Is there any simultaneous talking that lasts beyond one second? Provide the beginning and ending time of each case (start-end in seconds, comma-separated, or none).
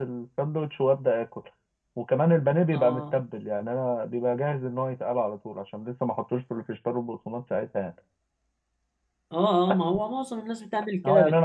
none